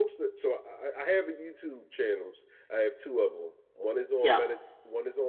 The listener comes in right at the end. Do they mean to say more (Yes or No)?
No